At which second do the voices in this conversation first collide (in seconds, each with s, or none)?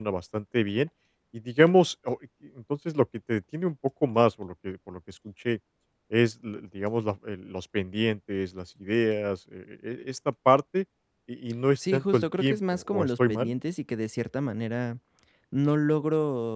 11.8 s